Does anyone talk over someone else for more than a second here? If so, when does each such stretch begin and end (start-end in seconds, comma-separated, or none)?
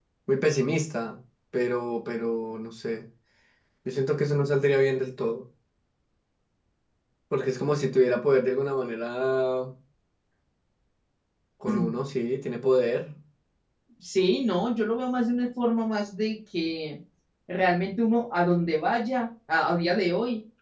none